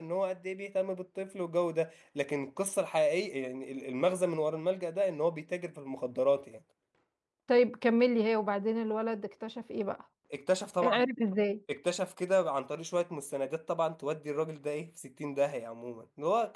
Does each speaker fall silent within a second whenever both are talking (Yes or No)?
Yes